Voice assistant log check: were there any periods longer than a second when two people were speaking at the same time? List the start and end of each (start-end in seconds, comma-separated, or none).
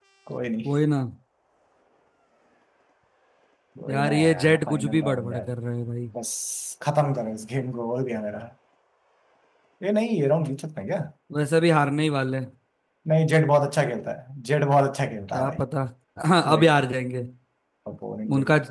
3.9-5.5